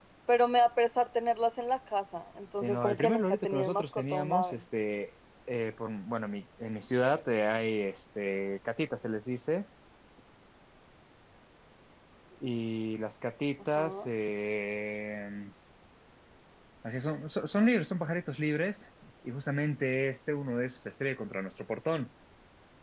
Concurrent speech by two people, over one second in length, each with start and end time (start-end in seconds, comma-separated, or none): 2.6-4.6